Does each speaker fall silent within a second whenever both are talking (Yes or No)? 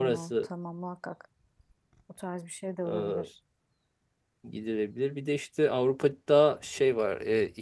Yes